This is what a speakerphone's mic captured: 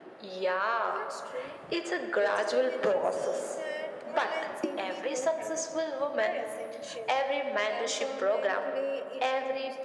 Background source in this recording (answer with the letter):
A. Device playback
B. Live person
B